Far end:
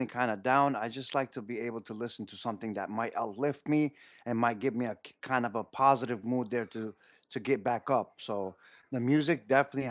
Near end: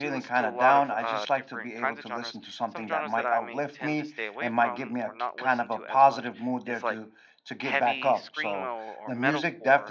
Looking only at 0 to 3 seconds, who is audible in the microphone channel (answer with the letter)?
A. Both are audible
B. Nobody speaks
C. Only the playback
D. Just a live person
A